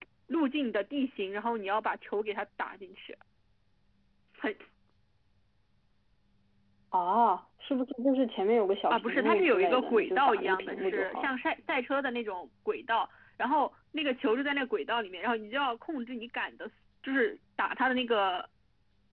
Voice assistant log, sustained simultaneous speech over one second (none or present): present